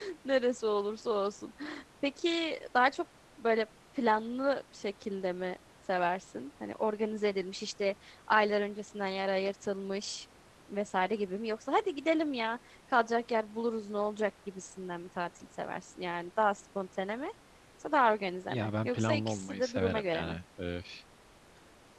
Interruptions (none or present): present